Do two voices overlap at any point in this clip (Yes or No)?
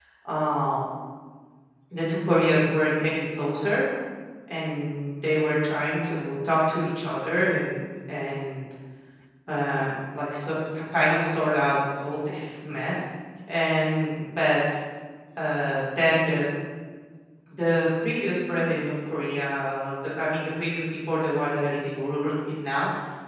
No